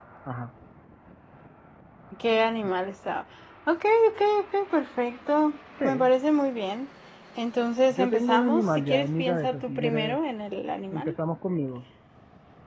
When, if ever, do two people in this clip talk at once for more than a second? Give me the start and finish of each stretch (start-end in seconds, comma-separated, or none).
7.9-10.2